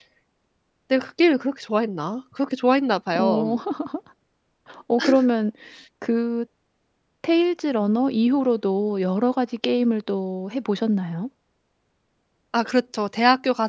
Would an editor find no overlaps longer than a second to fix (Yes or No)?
Yes